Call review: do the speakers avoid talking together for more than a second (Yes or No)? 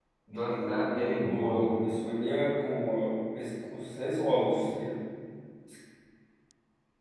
No